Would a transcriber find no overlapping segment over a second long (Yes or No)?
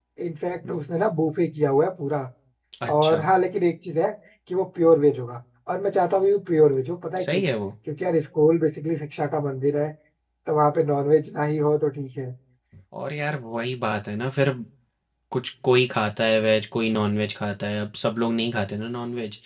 Yes